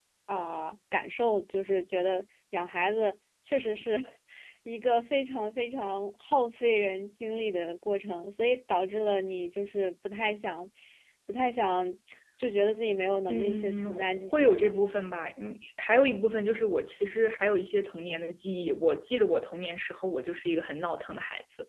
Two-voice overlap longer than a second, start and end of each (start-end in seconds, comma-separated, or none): 13.3-14.7